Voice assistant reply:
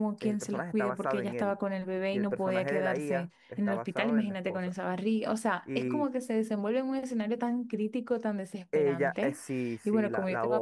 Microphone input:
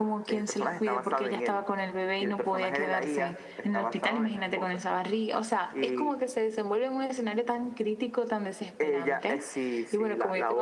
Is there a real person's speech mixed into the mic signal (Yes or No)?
No